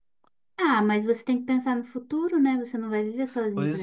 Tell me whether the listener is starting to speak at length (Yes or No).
Yes